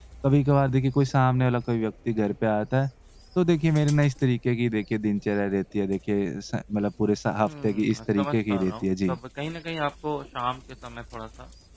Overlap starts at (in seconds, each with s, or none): 7.4 s